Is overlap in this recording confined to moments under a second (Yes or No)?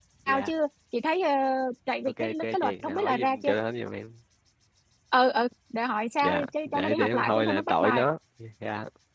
No